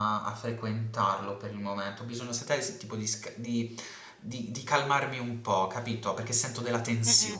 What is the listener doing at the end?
taking over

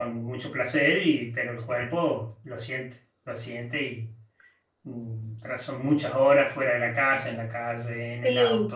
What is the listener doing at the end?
taking over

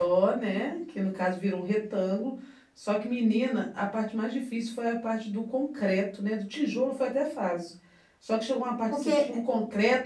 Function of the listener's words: listening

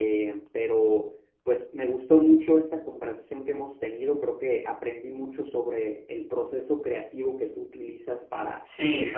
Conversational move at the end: taking over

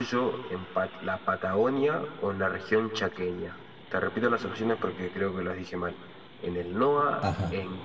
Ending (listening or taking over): listening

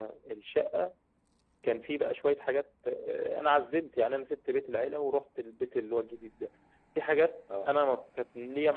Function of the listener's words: listening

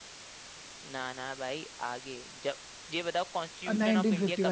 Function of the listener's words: taking over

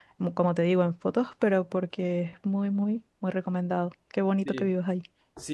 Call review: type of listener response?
taking over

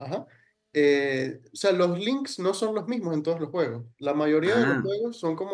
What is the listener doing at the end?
listening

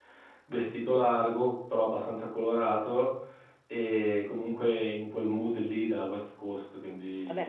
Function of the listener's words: taking over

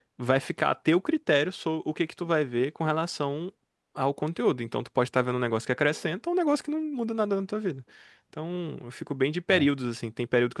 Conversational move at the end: listening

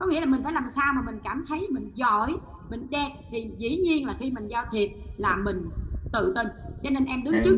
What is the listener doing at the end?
listening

